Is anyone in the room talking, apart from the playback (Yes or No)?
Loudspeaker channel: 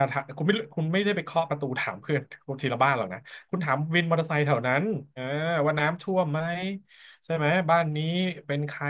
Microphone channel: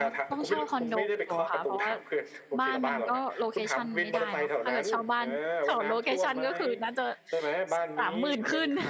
Yes